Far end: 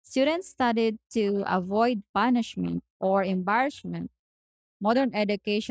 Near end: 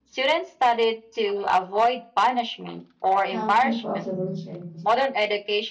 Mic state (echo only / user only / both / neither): both